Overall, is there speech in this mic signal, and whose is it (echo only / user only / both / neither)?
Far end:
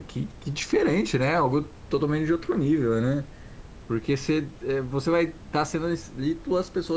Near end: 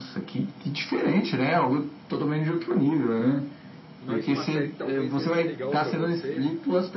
both